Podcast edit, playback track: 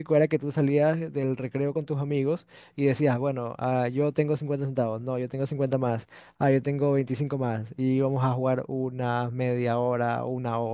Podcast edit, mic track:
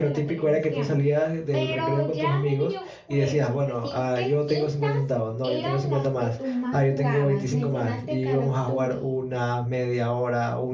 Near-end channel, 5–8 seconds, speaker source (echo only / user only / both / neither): both